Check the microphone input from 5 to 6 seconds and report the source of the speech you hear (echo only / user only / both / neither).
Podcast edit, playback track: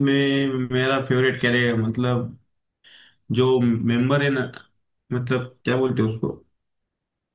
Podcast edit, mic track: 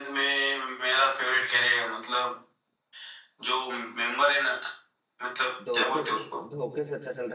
both